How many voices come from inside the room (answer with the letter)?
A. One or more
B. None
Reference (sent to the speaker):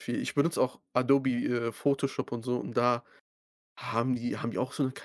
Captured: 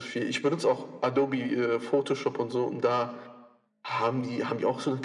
B